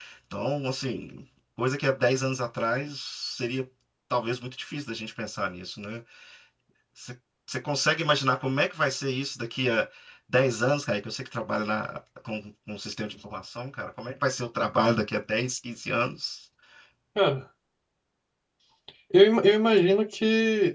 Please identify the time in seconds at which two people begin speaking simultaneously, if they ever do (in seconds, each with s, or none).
none